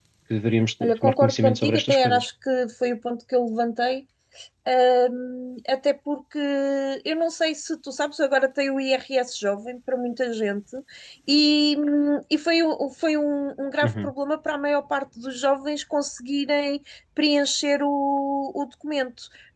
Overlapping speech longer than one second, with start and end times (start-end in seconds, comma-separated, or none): 0.8-2.3